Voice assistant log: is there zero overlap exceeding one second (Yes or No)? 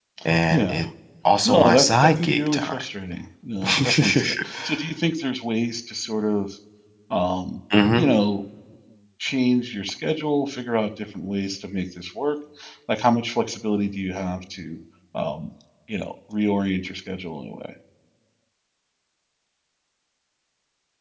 No